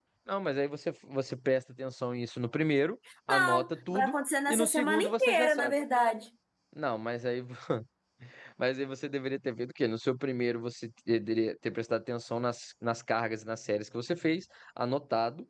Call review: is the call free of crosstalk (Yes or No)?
No